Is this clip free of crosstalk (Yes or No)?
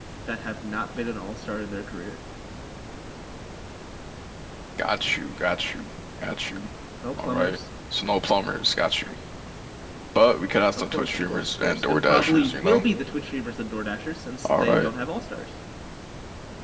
No